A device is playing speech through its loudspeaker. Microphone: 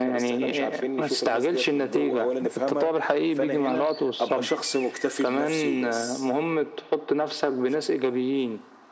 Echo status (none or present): present